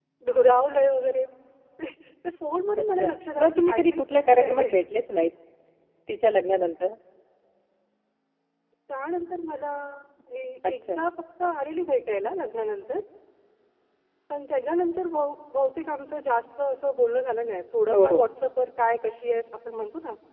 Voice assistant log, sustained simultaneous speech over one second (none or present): present